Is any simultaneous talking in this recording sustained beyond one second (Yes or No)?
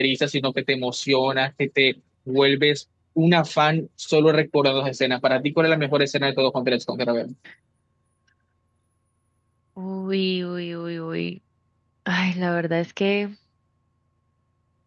No